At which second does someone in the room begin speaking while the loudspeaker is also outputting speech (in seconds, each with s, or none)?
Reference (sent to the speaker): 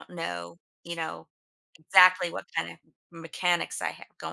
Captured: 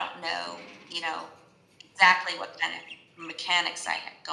none